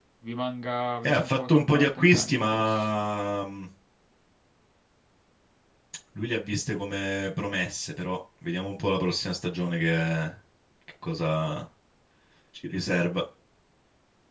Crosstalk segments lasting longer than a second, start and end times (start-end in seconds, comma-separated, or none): 1.0-2.9